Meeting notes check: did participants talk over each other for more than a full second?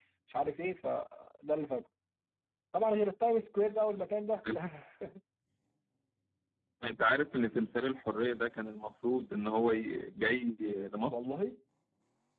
No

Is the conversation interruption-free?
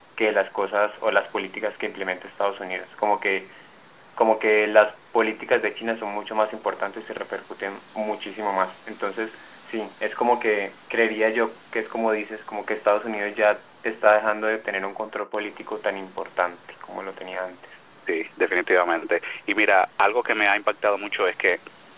Yes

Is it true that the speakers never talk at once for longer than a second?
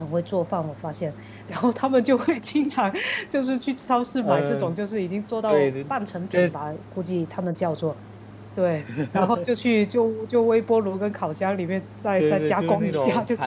No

